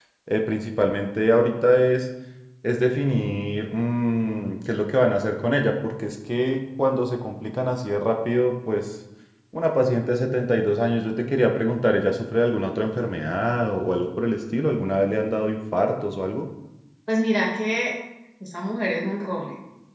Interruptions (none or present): none